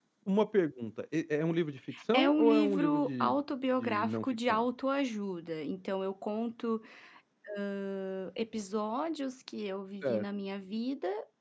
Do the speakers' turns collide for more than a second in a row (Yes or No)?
Yes